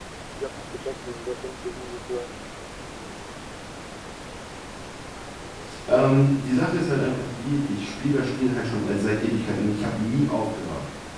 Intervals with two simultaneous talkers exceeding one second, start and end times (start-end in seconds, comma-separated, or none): none